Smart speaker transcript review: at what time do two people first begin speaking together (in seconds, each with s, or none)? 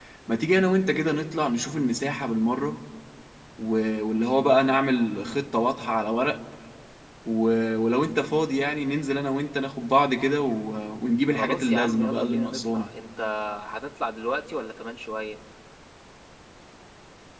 11.3 s